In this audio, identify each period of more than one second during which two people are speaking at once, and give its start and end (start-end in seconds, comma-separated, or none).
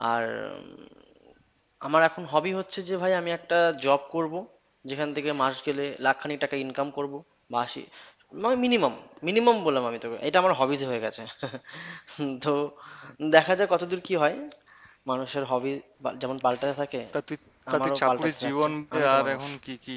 17.7-19.4